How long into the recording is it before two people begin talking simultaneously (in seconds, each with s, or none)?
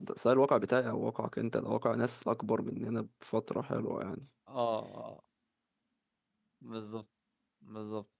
none